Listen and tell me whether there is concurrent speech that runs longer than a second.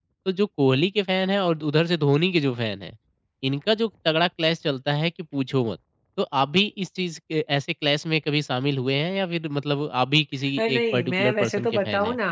Yes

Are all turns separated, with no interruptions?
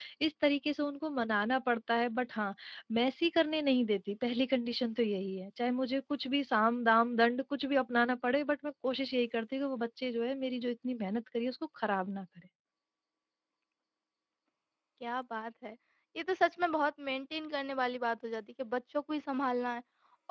Yes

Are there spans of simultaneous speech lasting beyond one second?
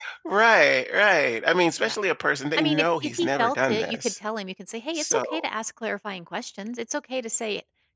Yes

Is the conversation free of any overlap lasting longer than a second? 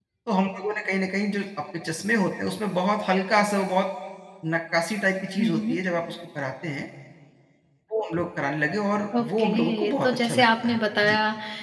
No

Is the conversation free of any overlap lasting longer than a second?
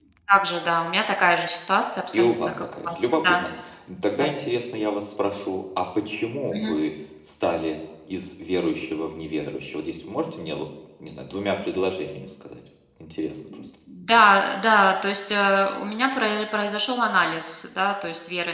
No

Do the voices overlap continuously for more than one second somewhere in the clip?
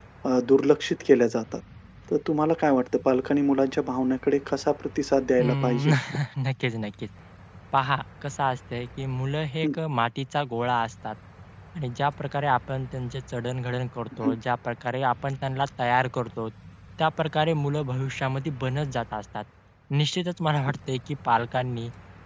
No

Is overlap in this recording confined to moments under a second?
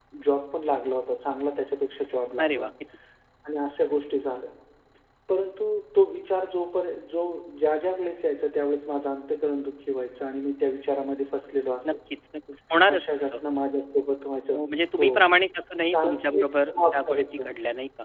No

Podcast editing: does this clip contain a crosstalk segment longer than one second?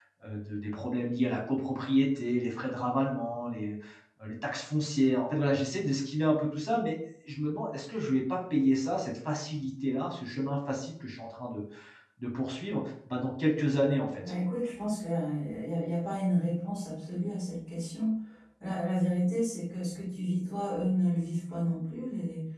No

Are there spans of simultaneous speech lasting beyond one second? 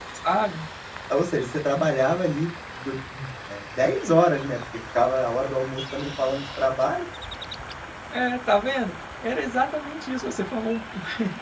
No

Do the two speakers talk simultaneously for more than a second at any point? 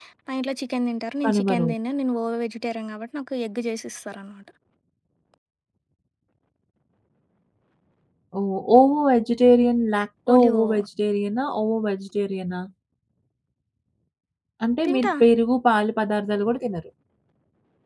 No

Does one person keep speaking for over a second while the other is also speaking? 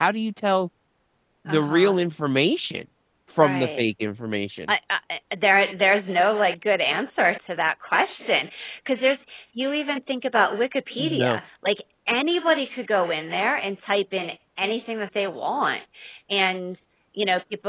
No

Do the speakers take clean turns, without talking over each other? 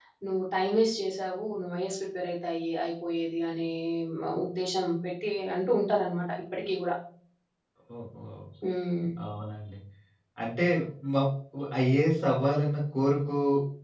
Yes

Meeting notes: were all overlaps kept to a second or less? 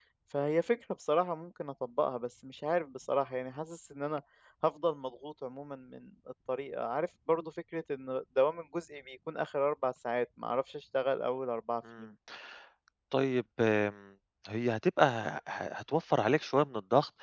Yes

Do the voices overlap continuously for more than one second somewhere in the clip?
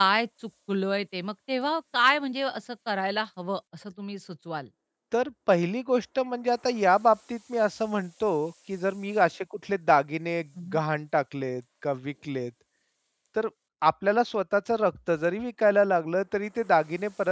No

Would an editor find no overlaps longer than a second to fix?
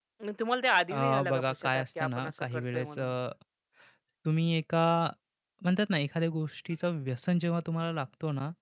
No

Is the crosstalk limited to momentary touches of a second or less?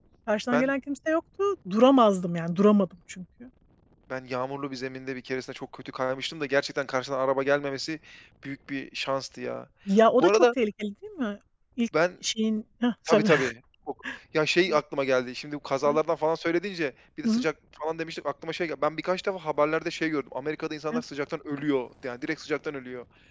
Yes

